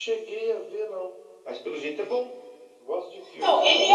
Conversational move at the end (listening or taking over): taking over